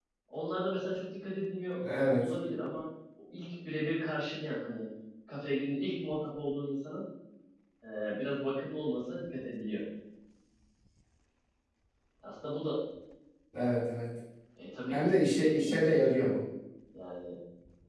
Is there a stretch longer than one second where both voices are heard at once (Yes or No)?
Yes